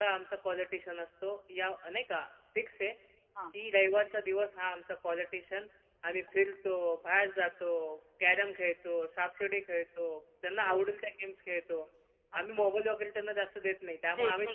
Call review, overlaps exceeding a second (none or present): none